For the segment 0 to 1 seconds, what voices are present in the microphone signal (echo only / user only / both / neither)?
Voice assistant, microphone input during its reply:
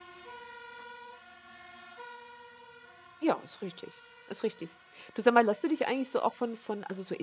neither